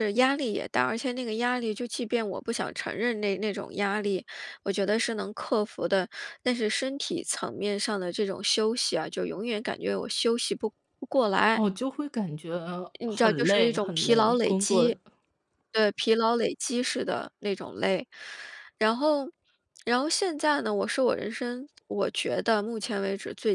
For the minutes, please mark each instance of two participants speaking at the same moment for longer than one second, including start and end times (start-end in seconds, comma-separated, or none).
13.1-14.9